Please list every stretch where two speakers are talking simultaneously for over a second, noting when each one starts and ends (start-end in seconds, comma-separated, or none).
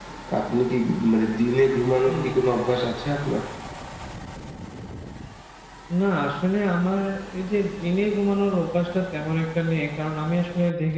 none